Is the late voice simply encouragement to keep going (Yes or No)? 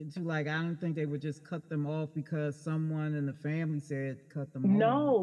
No